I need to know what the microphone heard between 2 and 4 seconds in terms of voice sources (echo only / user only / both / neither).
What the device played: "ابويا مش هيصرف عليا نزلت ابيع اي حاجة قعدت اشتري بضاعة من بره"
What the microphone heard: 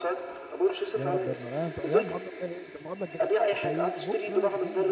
both